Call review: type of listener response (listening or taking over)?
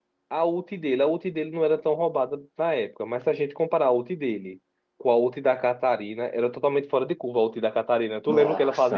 taking over